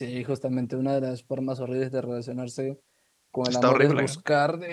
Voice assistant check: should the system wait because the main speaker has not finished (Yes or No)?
Yes